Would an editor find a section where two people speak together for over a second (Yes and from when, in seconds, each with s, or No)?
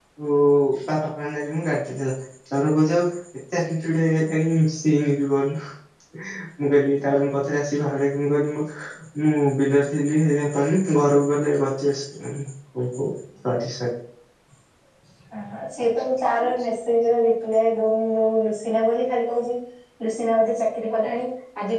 No